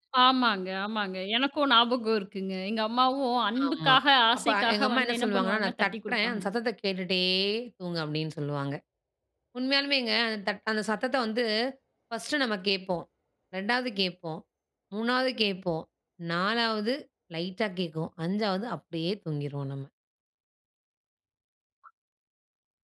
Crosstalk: present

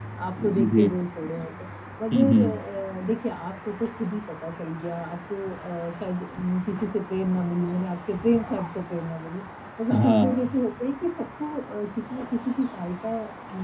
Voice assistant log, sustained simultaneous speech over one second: none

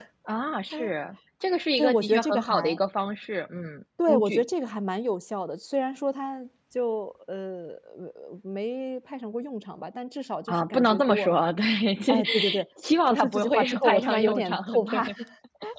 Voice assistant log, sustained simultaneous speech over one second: present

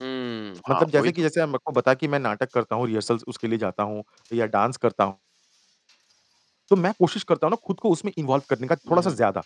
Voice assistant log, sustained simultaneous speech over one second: none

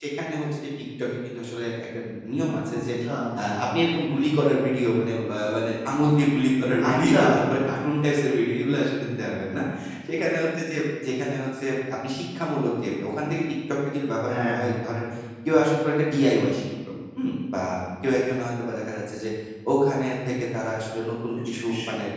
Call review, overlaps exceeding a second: none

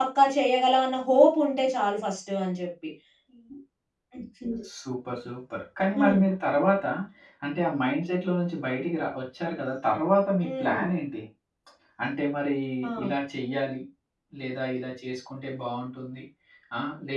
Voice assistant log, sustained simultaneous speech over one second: none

